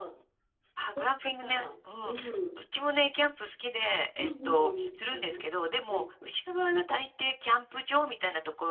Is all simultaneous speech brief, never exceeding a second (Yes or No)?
No